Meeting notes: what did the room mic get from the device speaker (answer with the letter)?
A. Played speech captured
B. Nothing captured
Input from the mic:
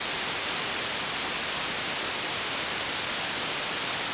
B